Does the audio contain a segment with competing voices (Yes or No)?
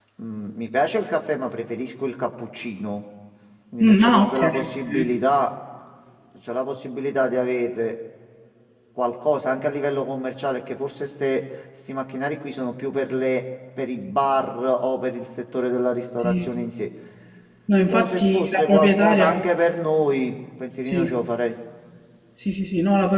Yes